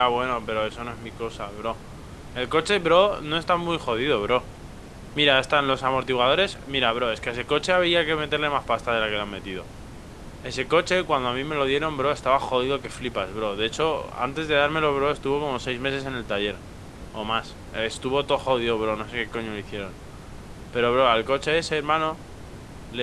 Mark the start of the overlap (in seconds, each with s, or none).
none